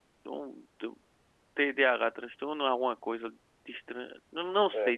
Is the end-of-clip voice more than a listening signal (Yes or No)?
No